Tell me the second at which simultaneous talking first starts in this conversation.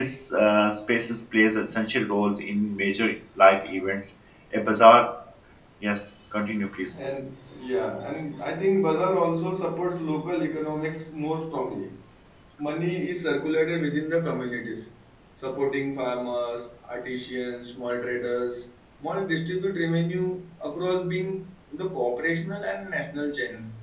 none

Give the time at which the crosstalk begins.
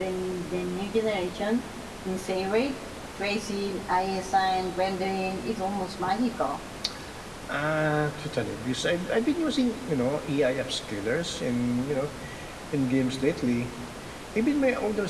none

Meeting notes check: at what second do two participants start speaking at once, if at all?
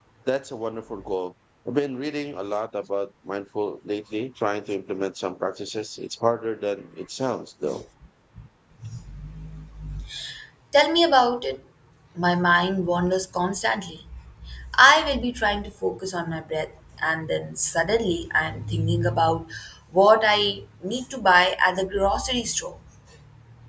none

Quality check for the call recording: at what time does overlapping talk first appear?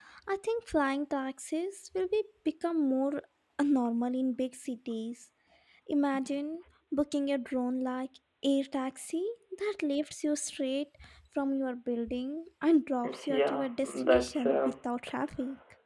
13 s

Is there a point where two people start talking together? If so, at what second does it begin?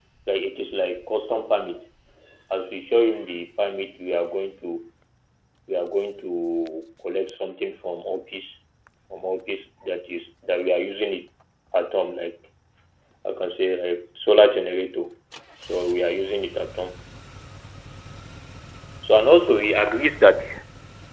none

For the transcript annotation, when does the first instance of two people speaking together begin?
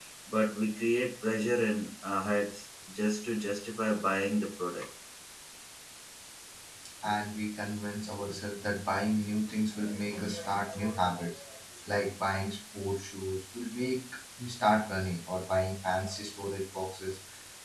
none

